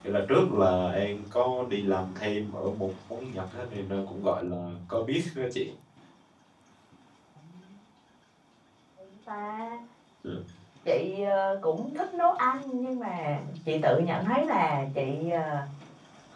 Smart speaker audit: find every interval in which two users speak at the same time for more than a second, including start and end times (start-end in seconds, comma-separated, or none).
none